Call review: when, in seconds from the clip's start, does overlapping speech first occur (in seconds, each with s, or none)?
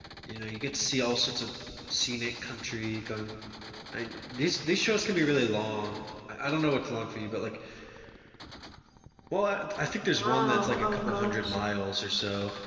10.2 s